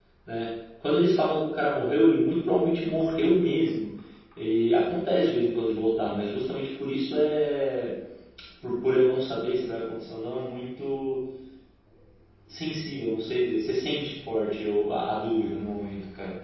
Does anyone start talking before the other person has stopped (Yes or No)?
No